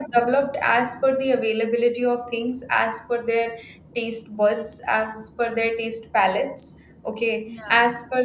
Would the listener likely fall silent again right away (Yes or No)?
Yes